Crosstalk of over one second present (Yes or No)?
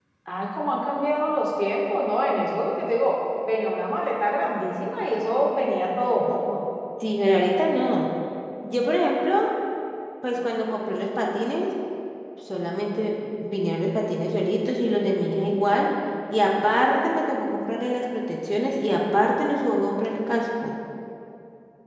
No